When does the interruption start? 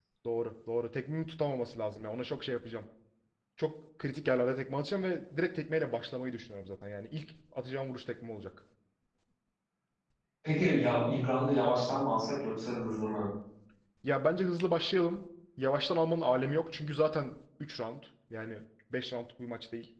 none

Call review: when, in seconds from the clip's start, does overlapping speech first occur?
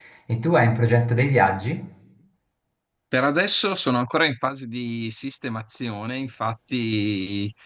none

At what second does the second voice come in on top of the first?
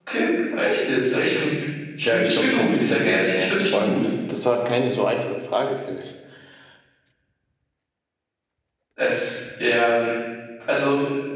2.0 s

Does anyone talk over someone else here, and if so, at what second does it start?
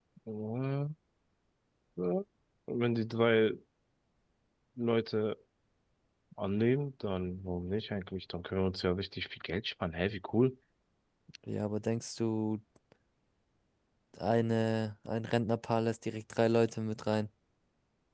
none

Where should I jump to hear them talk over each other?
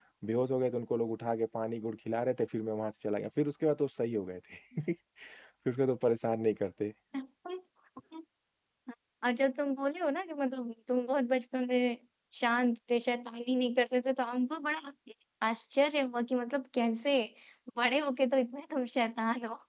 none

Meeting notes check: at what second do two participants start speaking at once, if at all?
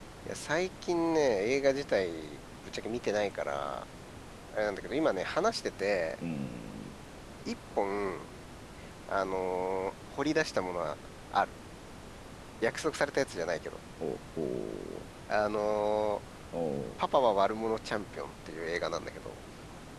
none

